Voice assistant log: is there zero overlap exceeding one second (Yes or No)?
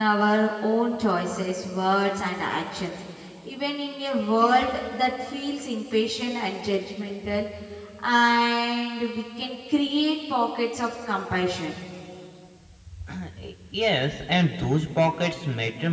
Yes